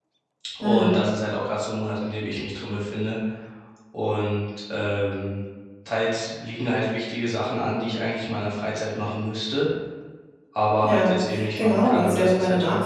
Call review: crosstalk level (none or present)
present